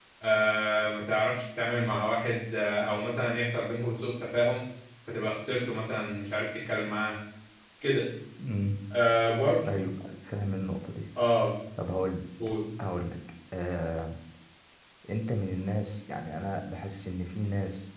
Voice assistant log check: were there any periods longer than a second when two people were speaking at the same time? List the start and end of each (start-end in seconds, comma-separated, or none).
none